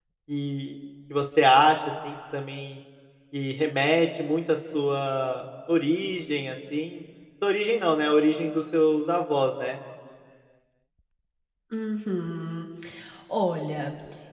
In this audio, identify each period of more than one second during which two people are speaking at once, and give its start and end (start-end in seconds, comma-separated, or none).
none